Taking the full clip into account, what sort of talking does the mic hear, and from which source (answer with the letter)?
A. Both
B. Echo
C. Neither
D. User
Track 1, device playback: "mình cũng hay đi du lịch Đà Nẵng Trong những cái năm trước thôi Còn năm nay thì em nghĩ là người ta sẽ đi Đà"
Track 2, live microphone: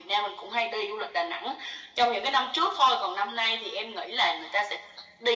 B